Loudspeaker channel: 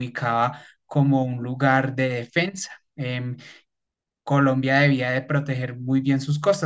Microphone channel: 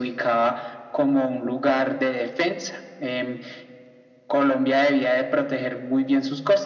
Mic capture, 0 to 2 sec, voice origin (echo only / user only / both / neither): echo only